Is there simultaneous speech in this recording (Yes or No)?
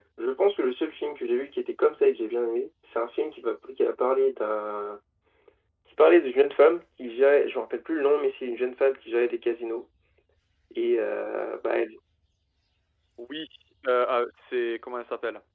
No